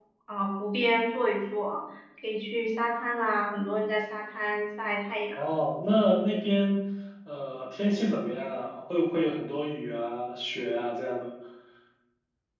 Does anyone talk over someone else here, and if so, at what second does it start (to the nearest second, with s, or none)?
none